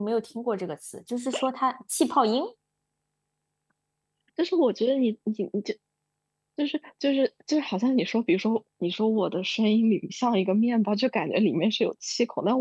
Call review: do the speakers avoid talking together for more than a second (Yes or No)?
Yes